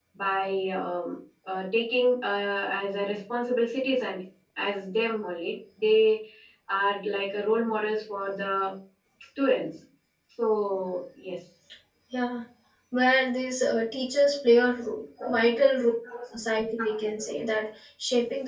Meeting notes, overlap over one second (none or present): none